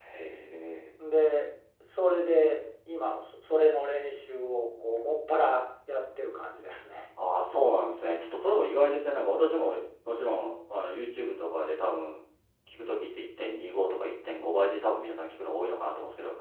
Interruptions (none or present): none